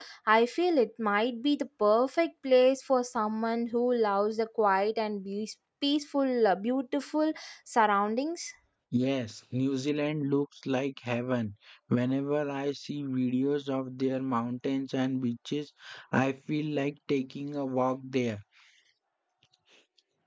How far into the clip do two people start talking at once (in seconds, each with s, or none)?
none